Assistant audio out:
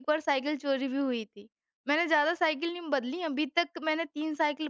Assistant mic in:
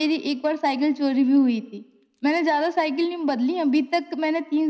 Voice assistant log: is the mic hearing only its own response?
Yes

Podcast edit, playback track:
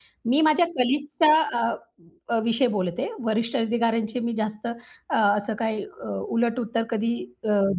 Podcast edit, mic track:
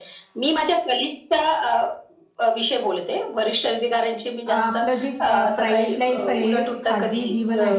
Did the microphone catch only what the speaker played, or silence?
No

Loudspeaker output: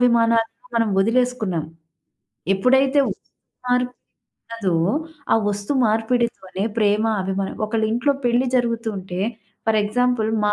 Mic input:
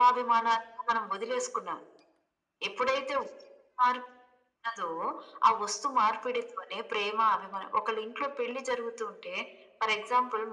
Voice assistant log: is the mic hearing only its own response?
Yes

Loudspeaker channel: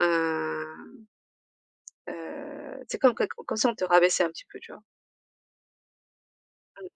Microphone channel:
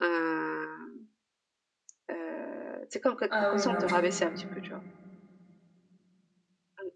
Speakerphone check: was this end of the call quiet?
No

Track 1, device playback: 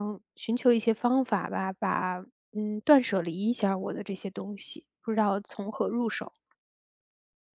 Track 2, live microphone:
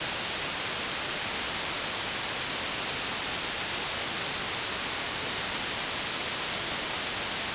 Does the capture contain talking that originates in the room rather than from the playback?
No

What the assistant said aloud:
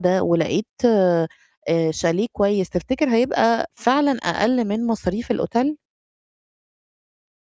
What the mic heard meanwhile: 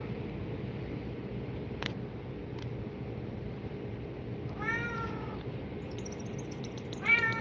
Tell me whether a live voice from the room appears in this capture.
No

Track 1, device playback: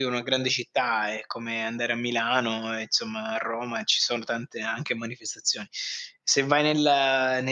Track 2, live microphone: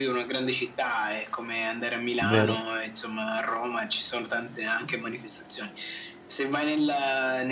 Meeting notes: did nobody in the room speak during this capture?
No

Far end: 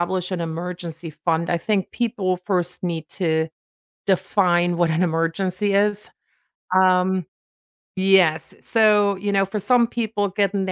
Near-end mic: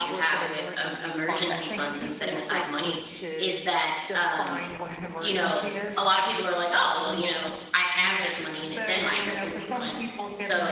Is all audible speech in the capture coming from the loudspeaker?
No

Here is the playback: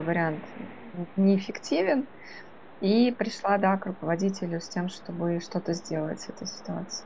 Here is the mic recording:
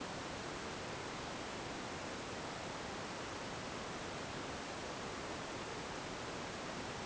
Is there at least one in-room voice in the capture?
No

